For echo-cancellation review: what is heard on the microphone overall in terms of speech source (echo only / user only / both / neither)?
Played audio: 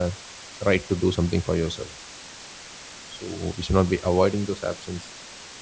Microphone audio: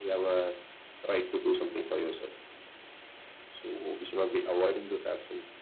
echo only